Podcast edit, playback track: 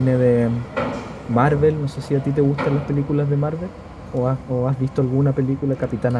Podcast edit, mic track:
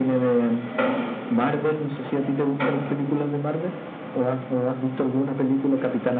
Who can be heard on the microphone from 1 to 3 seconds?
echo only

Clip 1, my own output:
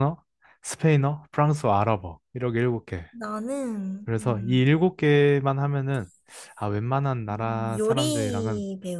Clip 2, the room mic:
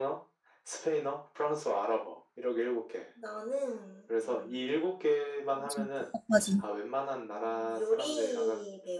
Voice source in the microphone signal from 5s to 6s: both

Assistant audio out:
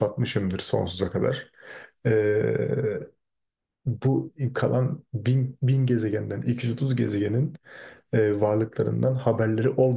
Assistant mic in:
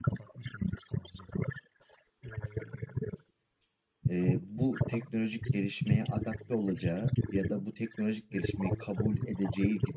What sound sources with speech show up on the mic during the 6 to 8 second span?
both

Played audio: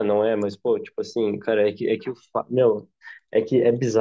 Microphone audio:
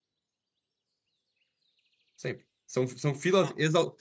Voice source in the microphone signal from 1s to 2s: neither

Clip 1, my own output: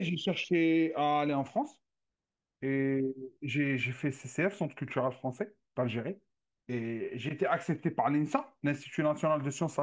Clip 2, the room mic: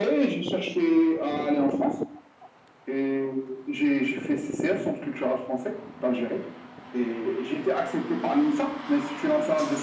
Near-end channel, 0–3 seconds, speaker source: echo only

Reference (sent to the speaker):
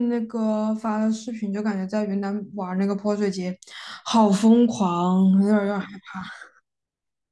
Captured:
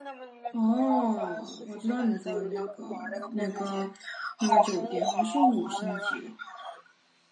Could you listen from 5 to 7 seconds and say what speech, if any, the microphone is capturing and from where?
both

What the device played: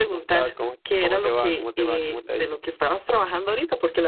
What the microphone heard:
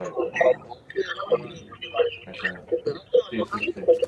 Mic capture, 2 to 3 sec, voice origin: both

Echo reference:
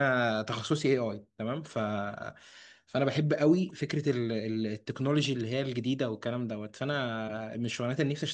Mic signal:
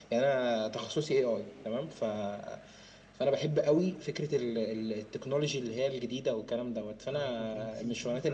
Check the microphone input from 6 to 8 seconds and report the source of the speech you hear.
both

